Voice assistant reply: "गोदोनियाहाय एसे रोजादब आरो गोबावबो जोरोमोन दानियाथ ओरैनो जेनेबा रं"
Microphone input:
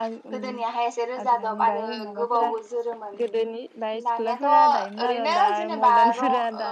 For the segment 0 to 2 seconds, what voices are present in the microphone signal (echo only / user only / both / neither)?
both